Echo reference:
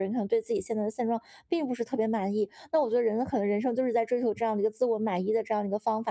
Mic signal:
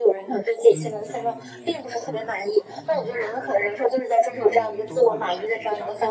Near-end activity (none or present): present